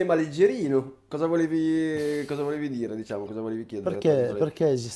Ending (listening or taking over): taking over